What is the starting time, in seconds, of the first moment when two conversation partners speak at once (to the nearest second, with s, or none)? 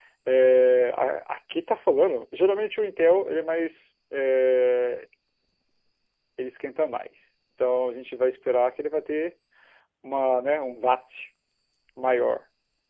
none